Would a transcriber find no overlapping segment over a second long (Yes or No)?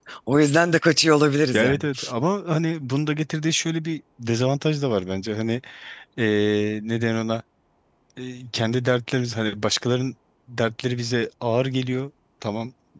Yes